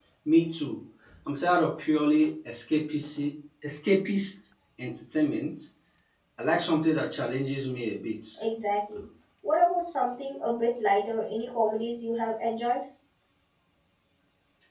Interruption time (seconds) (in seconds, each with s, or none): none